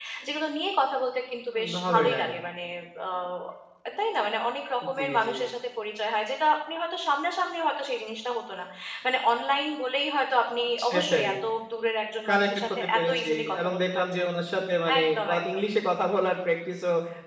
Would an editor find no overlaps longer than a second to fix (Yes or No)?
No